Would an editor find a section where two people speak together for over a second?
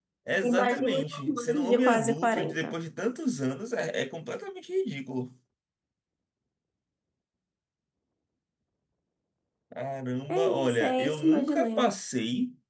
Yes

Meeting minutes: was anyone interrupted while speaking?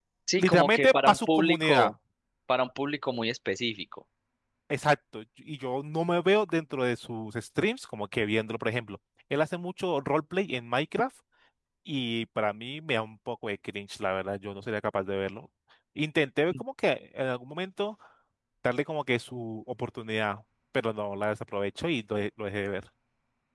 Yes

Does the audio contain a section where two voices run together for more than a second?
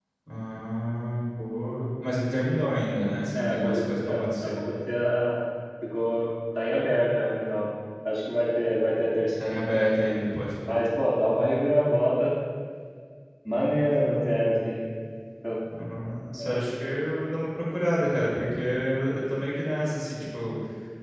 Yes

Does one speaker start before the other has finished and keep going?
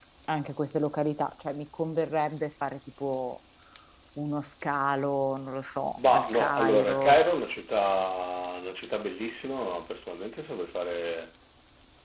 Yes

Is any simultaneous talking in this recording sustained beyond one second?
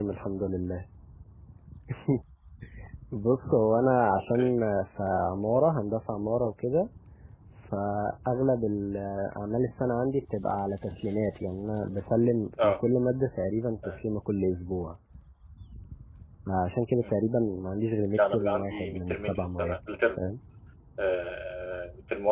Yes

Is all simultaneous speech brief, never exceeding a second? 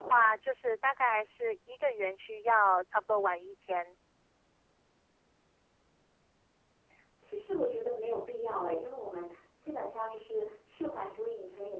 Yes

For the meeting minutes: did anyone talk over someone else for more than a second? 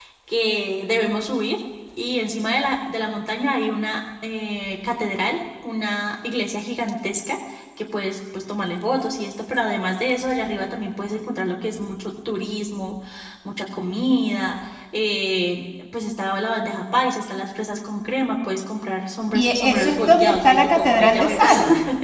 Yes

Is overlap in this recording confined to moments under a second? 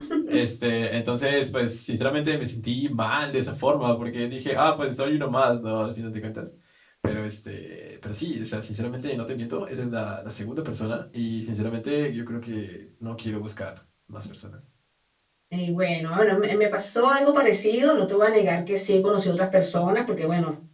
Yes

